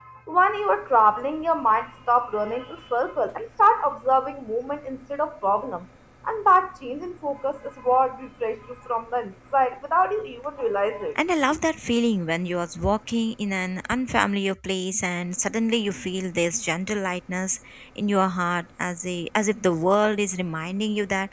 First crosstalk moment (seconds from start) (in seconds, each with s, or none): none